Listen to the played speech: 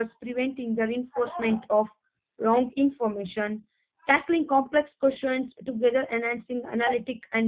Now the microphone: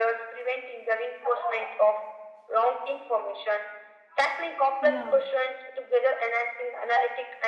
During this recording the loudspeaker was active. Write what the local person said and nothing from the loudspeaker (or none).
Yeah,